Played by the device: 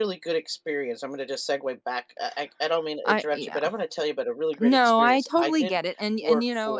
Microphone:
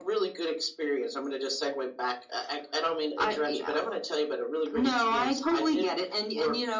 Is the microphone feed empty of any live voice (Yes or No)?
Yes